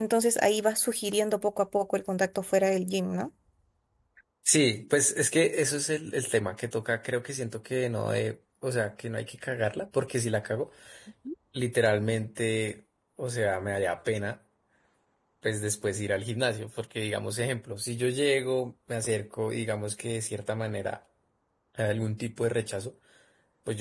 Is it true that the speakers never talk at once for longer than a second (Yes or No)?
Yes